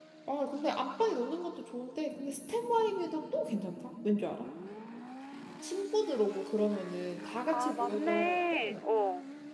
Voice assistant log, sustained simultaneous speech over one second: present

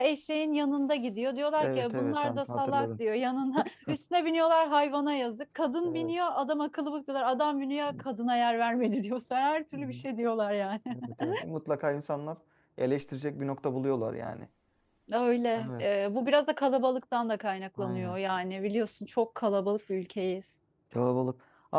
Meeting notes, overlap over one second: present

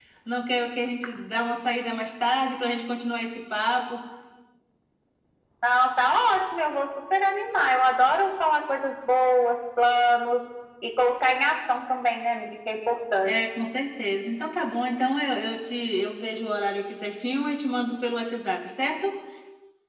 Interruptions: none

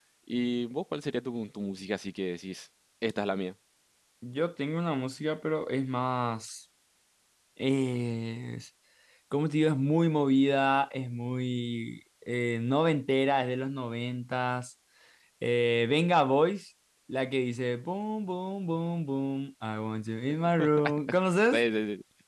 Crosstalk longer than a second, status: none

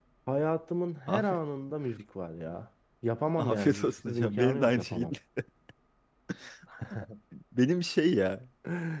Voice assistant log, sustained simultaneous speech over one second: present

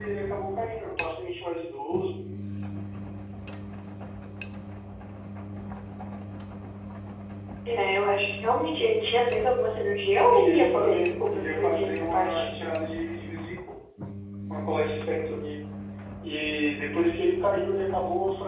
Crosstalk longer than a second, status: present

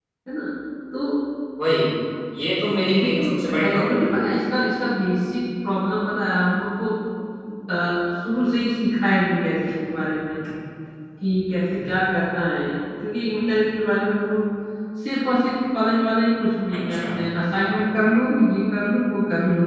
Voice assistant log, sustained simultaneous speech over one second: present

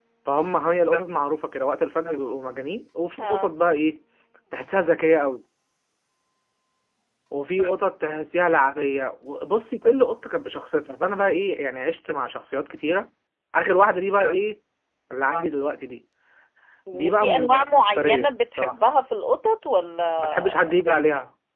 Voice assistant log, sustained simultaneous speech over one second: present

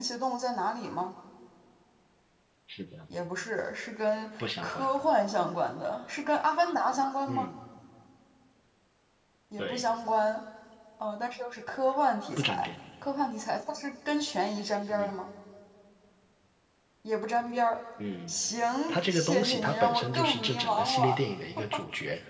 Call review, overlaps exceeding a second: present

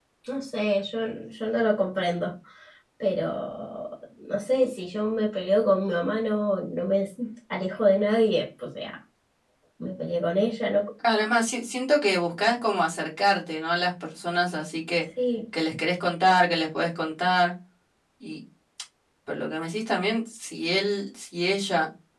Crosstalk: none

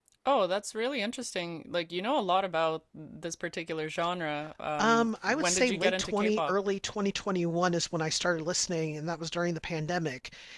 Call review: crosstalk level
present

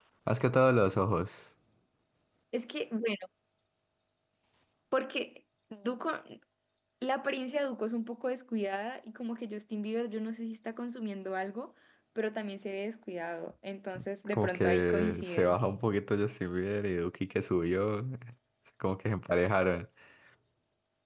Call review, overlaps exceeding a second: present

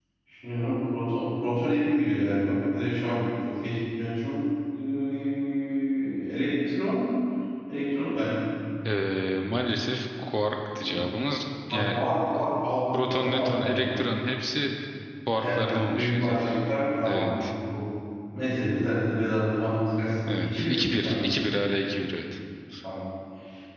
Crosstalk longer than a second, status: present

